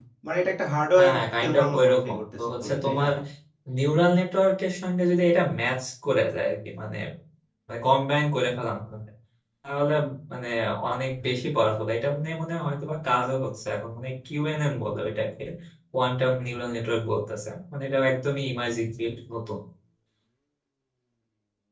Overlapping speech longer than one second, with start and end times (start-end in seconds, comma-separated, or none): 1.0-3.0